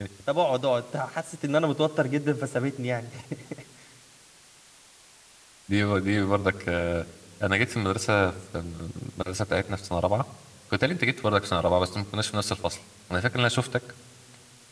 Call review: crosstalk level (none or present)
none